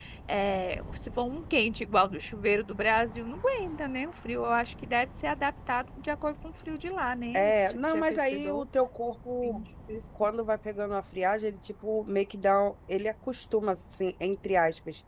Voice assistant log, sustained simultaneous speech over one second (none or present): present